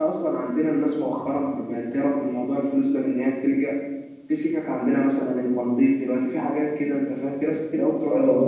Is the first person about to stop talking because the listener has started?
Yes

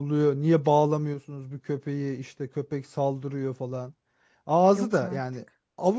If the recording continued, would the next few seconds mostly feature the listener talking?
No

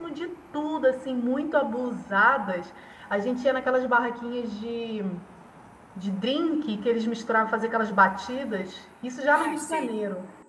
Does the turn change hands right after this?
No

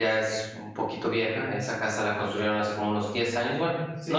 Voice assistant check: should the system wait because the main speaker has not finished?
No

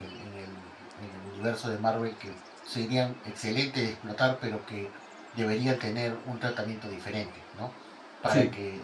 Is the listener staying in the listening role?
Yes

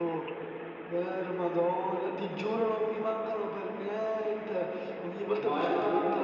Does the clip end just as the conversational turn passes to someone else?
No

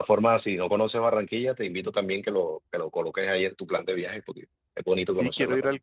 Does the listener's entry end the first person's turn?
Yes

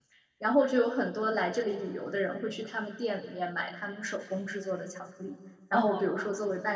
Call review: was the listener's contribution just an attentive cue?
Yes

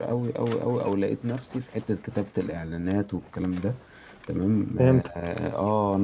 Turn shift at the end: No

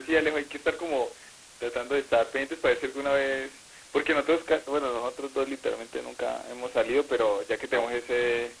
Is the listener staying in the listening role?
Yes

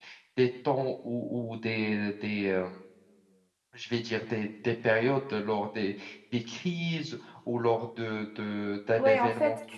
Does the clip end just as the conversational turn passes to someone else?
Yes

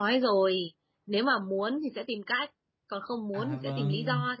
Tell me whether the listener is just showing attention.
No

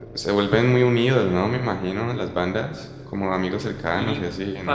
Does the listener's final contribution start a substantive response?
Yes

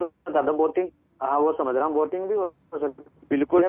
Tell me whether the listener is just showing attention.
No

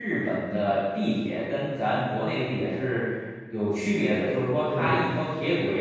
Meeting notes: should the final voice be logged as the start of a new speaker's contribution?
No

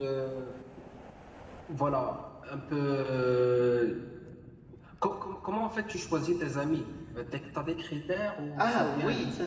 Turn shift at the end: Yes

